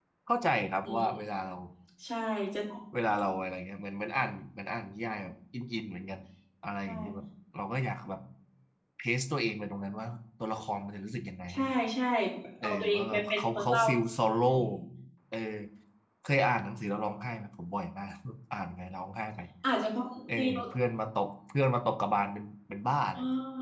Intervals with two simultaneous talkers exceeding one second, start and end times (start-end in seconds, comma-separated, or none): 12.6-13.8